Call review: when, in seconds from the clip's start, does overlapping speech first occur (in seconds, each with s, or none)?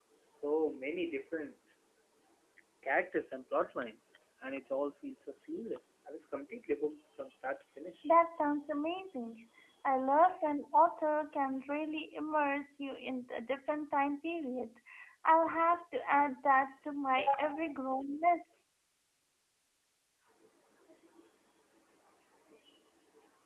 none